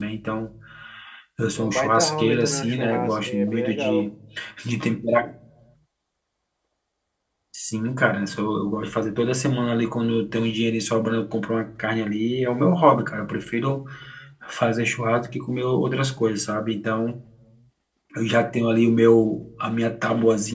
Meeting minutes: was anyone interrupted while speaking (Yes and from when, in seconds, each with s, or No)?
Yes, from 1.6 s